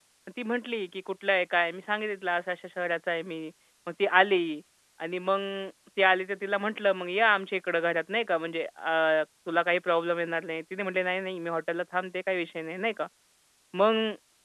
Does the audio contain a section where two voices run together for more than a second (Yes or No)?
No